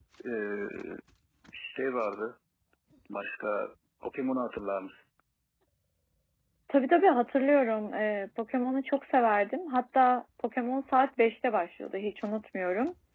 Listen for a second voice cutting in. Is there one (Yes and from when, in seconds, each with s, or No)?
No